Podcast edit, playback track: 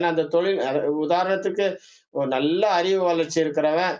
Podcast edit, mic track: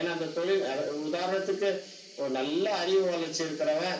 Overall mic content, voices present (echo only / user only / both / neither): echo only